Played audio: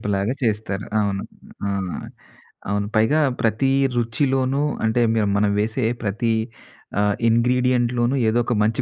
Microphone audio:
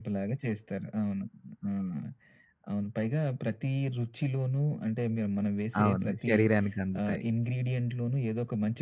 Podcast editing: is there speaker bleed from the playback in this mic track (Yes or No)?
Yes